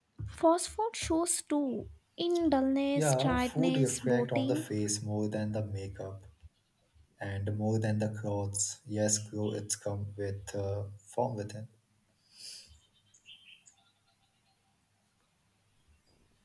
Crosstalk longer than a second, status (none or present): present